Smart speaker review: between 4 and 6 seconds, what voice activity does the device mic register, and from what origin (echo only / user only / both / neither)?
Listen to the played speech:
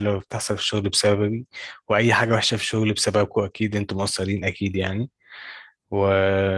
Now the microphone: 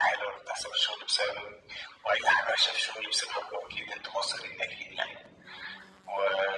echo only